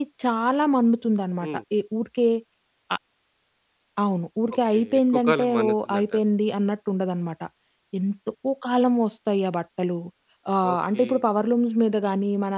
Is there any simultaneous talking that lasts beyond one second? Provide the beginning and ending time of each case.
4.7-6.2

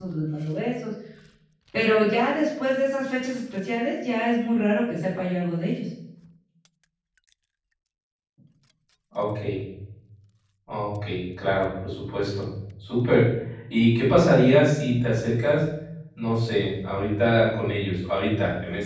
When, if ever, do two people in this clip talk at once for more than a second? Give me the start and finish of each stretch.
none

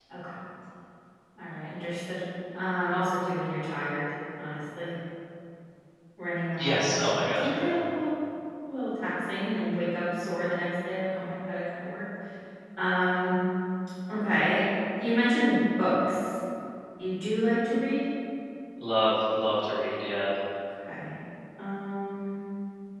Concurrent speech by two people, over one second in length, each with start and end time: 6.6-7.8

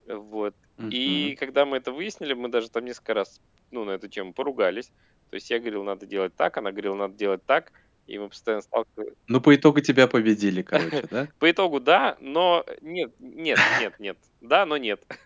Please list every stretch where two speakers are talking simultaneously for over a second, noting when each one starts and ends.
none

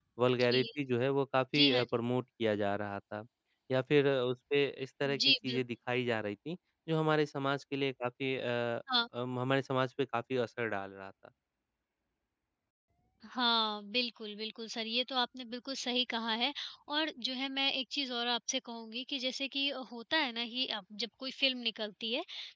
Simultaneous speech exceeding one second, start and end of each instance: none

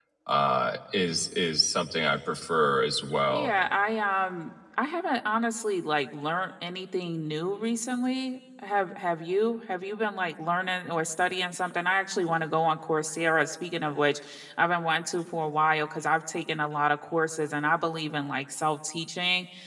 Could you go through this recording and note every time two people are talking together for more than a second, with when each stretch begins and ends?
none

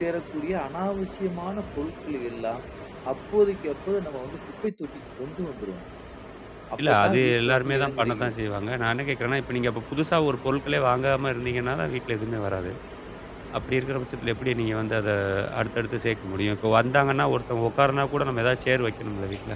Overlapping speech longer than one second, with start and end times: 6.8-8.3

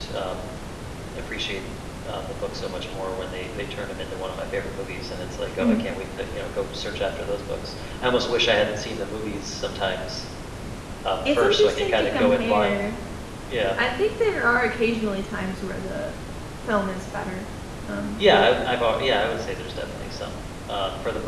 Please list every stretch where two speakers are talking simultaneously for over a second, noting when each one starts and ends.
11.2-12.8

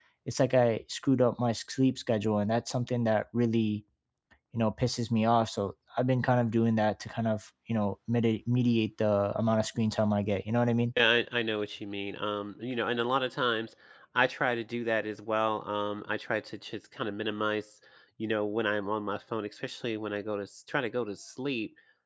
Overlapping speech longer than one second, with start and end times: none

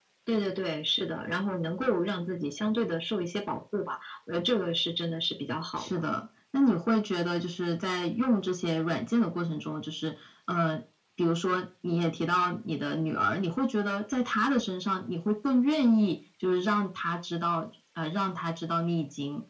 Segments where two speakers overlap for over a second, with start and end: none

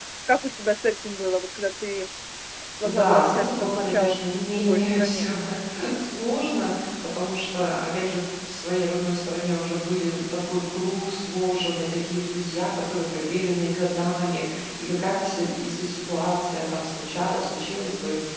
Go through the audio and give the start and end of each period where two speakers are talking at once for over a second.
2.8-5.3

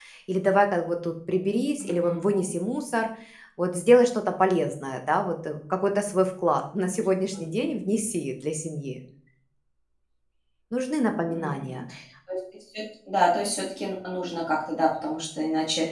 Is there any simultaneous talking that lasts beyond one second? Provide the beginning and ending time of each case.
none

